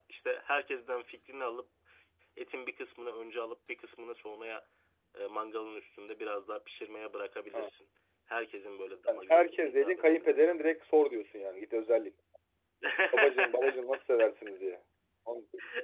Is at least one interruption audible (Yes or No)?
Yes